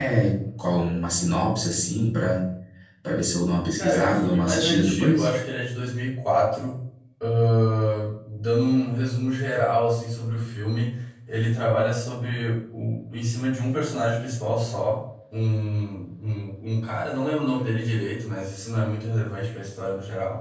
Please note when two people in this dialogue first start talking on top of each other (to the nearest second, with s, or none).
4 s